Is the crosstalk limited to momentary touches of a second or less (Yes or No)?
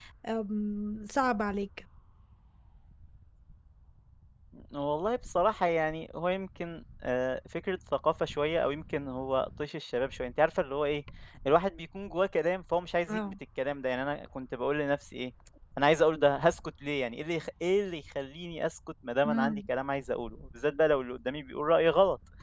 Yes